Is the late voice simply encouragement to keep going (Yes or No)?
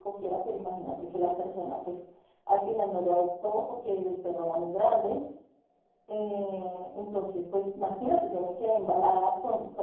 Yes